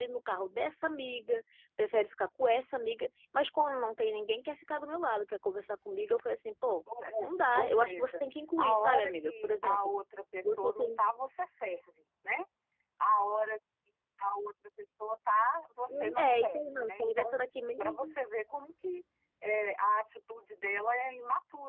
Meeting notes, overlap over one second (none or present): present